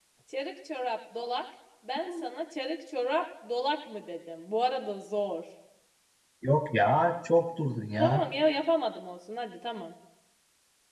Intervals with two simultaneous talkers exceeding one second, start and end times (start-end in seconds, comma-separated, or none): none